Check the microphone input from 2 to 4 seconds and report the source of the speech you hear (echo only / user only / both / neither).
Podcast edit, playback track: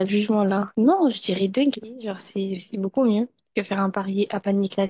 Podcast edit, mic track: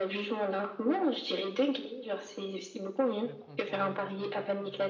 both